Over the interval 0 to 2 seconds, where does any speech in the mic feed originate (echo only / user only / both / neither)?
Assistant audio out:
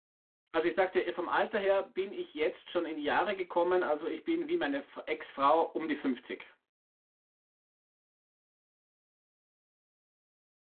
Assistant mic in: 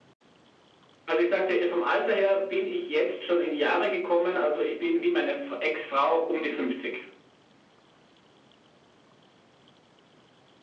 echo only